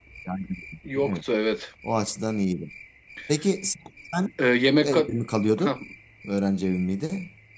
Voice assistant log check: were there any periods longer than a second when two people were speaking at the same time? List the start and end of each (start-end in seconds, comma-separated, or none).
none